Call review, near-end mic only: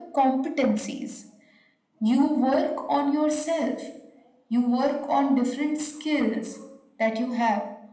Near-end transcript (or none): none